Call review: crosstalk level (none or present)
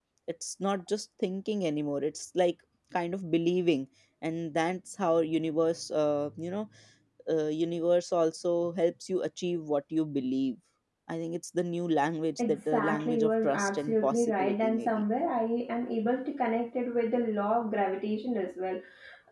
present